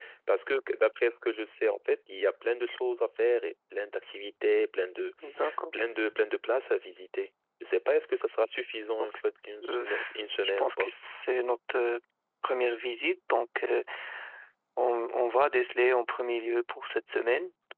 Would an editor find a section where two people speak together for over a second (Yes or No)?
No